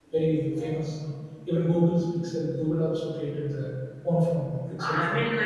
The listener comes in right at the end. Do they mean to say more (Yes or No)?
Yes